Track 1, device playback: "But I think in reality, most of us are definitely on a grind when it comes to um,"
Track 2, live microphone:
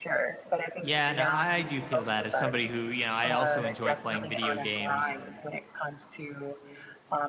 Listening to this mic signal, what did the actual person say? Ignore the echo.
Yeah, no, I do feel that as somebody who, you know, I also enjoy playing video games.

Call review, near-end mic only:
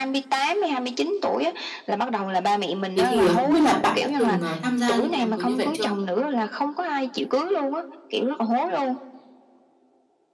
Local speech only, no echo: Thế thì, ờ, không biết là bạn đã từng, ờ, tham gia những cái đám cưới như vậy chưa?

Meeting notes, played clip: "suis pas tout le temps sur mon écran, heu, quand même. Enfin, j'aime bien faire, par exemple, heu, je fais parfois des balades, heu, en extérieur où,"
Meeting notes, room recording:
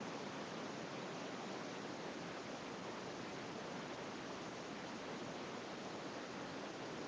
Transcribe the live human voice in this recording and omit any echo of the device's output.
none

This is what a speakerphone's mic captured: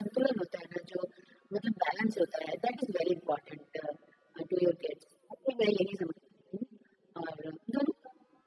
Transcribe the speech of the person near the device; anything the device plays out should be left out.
none

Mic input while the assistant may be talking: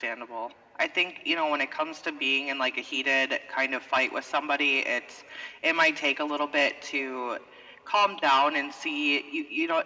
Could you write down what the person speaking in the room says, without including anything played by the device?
none

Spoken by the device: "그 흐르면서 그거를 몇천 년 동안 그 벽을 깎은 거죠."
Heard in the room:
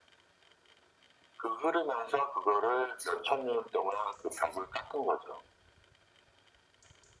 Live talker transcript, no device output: none

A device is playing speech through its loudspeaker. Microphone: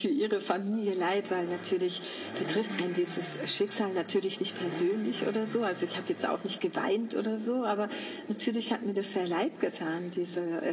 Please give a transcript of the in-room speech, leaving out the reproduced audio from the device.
none

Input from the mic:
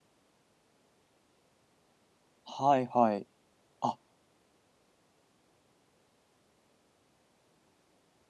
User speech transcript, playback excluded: はいはい。あ、

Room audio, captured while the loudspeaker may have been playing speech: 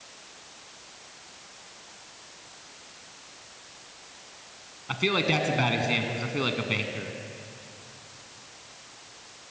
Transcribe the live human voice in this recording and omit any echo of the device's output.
I feel like that's a bad example because I feel like a banker

